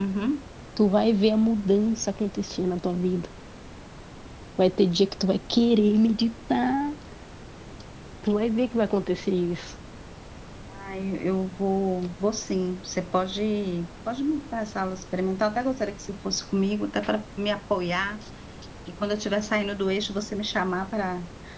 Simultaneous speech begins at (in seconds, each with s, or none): none